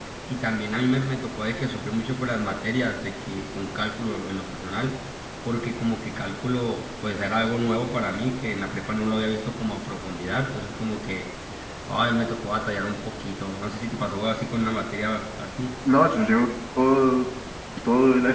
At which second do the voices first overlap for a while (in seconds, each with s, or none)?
none